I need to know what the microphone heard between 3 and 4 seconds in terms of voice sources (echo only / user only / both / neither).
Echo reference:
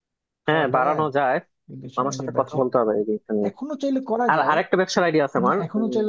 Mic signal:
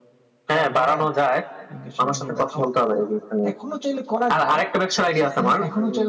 echo only